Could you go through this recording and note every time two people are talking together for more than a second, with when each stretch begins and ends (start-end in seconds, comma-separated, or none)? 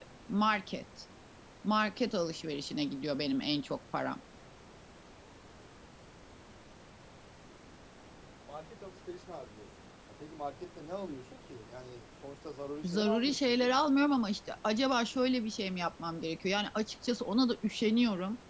12.8-14.1